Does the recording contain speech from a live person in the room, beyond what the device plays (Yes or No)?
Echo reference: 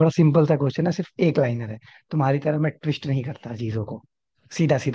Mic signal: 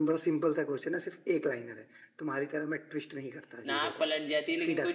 Yes